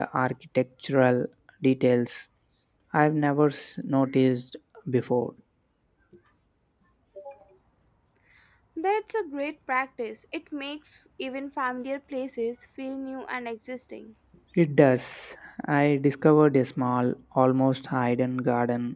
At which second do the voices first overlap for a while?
none

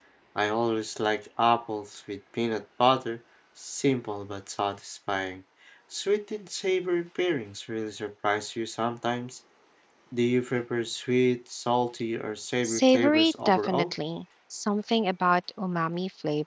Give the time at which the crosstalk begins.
12.6 s

